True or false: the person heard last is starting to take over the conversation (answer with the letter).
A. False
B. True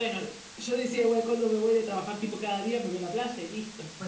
B